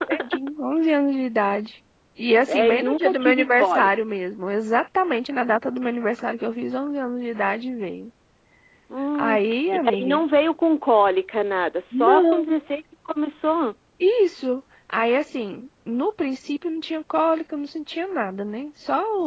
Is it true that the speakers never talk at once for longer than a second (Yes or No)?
No